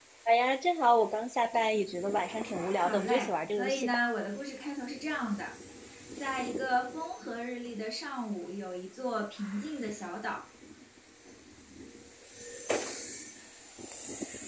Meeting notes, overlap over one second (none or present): present